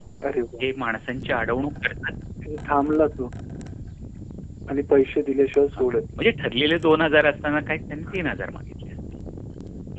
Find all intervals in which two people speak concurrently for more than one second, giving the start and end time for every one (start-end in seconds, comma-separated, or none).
none